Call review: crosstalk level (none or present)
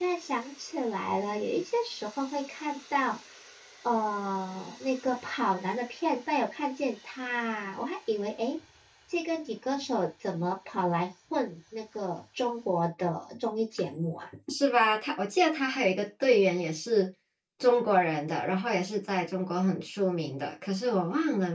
none